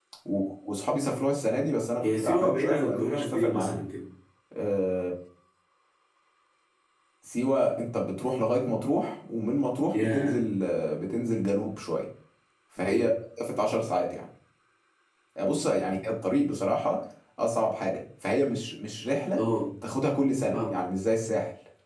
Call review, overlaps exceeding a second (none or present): present